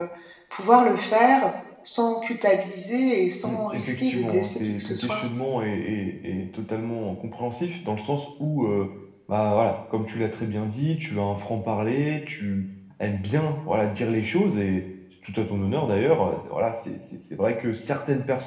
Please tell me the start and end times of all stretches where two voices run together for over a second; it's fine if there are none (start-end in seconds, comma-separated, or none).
3.4-5.2